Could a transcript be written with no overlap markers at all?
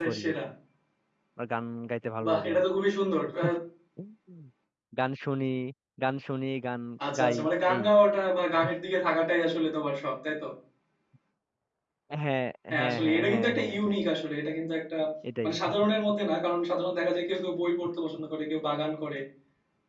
No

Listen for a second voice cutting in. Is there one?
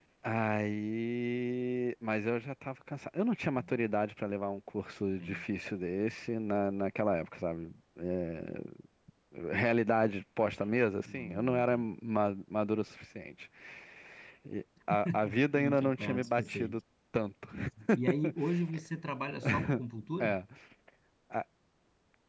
Yes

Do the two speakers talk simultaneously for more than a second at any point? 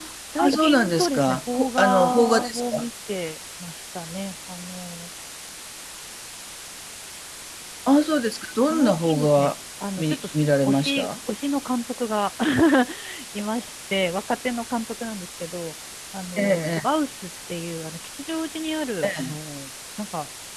Yes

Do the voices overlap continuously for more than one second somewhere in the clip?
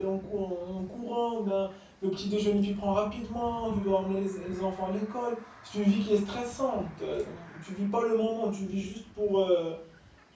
No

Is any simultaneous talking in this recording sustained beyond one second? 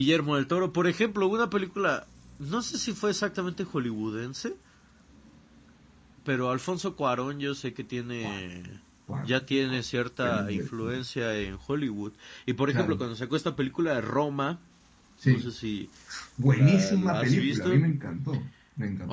Yes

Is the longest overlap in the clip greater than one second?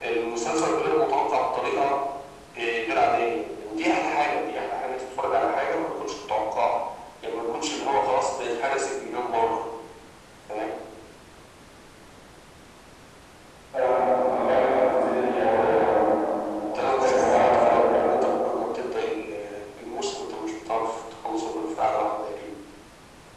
Yes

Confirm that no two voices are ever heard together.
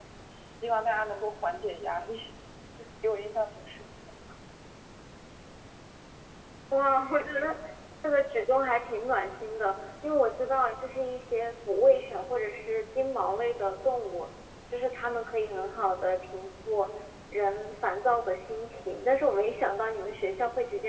Yes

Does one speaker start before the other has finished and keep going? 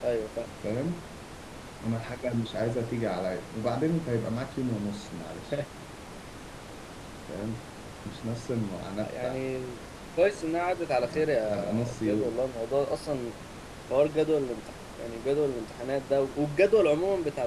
Yes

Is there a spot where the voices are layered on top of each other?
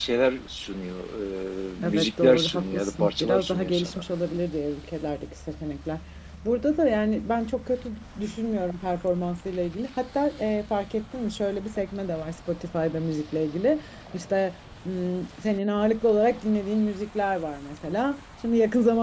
Yes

